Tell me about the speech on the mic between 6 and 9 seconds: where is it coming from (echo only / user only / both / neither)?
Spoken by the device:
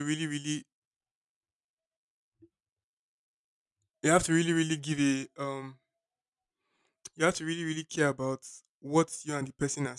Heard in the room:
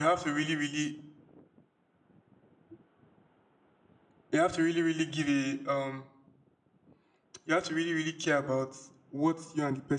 echo only